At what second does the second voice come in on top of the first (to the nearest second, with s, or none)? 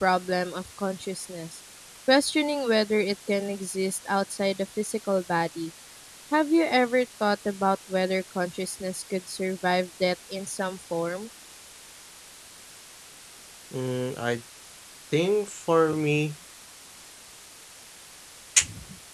none